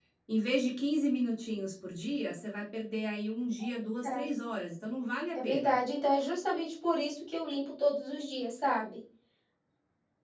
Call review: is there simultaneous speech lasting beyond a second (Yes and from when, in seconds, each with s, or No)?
No